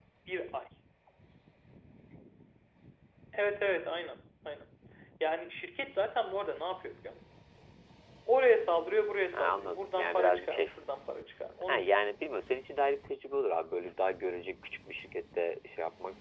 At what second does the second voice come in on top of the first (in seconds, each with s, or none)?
9.3 s